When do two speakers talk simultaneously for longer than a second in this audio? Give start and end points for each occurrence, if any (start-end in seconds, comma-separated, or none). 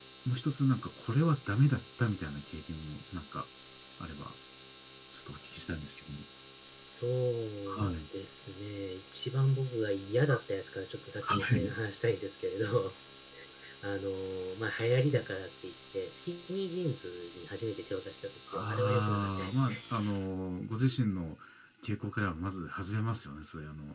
18.5-19.8